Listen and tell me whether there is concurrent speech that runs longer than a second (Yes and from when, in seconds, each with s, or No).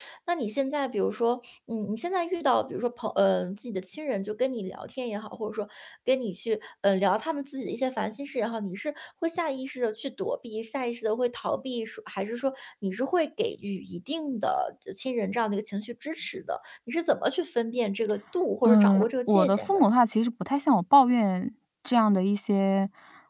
Yes, from 18.6 s